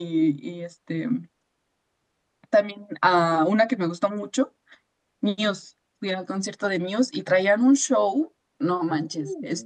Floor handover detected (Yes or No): No